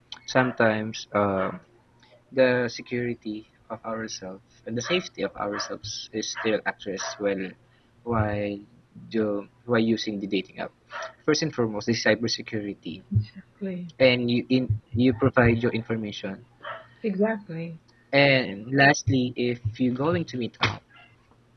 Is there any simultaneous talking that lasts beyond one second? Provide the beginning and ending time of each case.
none

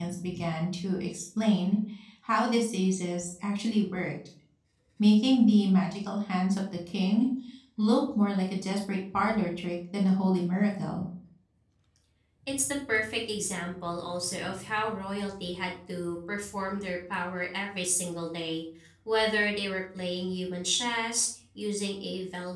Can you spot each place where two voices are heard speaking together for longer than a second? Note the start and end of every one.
none

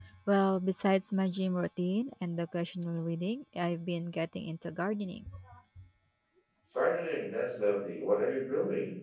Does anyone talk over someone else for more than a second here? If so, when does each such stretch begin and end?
none

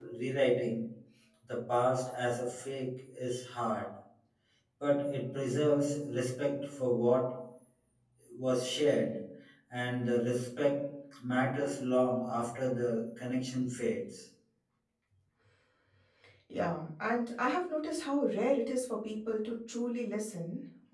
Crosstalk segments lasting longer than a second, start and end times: none

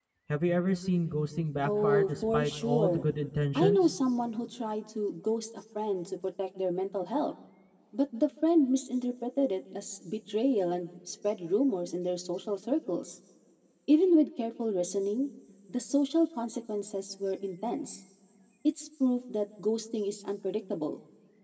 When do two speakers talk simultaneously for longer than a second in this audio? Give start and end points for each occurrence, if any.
1.6-3.0

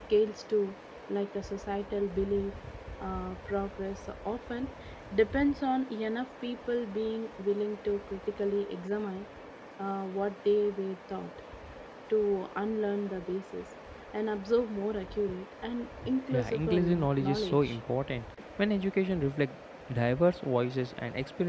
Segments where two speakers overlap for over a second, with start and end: 16.3-17.8

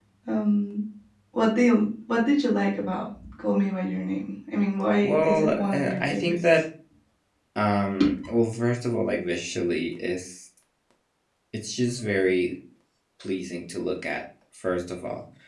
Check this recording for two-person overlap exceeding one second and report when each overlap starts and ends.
5.0-6.3

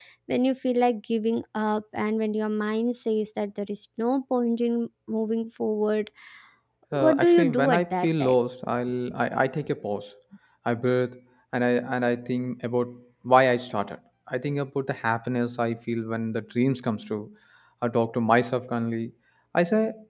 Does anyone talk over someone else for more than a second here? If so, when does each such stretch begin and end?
7.0-8.3

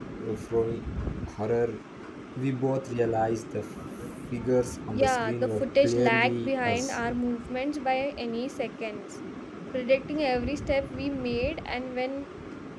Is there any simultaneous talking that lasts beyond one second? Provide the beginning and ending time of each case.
4.9-7.0

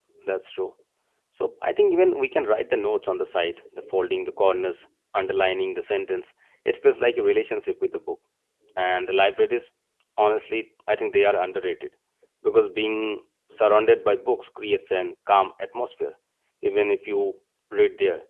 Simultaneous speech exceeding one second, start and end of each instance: none

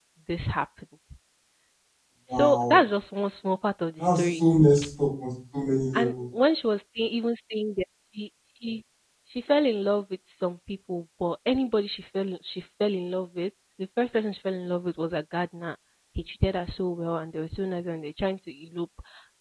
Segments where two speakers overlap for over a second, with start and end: none

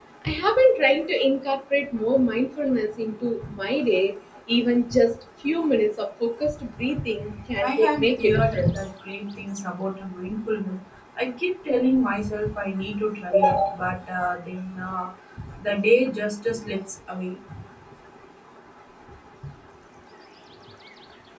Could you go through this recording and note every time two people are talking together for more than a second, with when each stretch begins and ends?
7.6-8.8

